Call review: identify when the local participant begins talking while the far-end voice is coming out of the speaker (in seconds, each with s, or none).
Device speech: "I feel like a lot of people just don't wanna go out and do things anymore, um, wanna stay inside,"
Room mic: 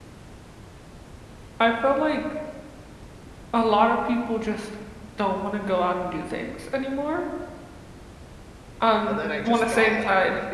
9.0 s